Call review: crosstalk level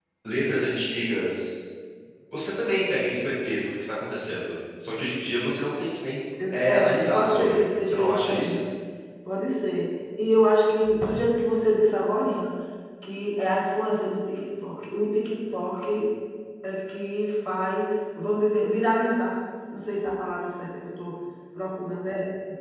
present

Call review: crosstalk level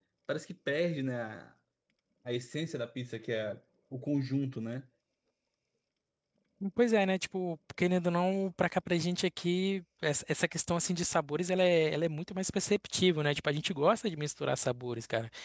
none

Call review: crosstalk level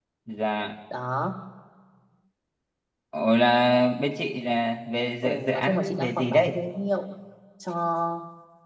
present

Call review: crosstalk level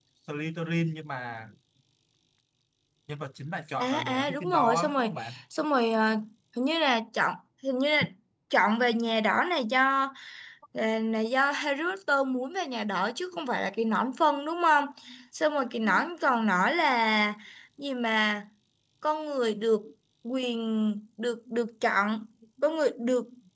present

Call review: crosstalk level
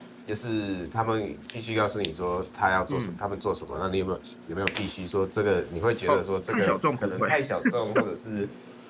present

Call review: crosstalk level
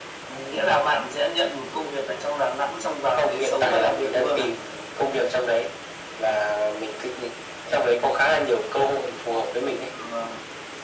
present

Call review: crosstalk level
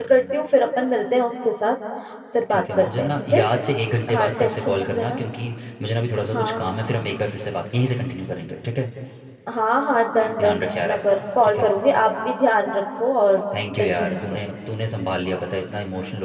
present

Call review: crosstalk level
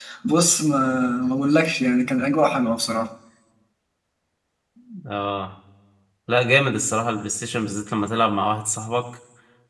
none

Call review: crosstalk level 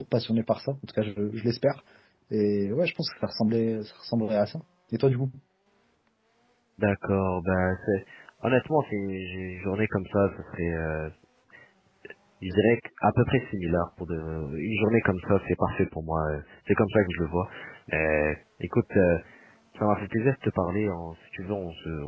none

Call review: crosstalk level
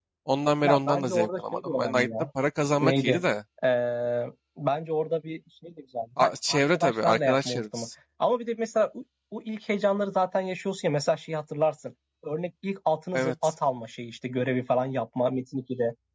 present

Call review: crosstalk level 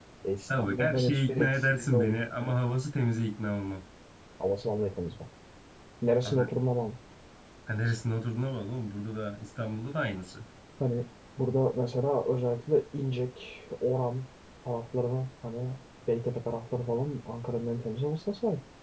present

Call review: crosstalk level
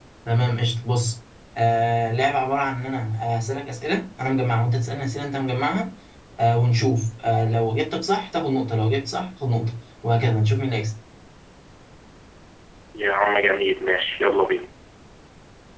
none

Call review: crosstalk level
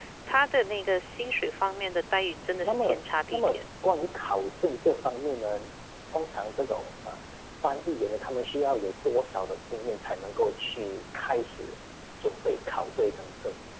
present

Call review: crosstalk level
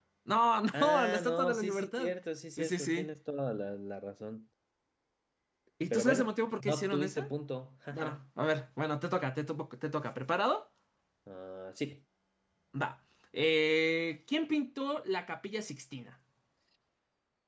present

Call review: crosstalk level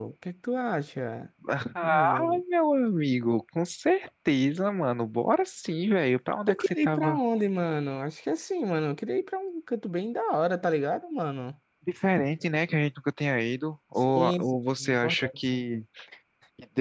present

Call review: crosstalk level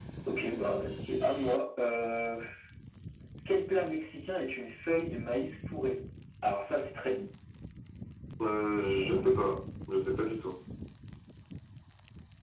none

